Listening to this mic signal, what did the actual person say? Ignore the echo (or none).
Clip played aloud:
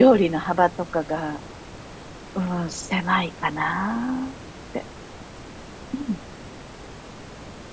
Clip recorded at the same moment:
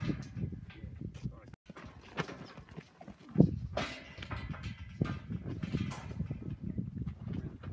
none